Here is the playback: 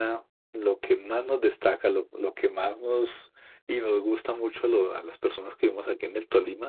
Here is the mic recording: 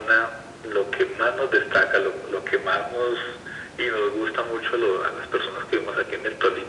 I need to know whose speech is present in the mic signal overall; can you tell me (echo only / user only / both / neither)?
echo only